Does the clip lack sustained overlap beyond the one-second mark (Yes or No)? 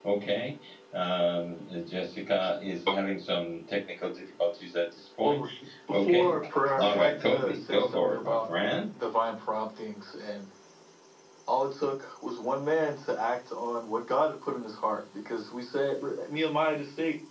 No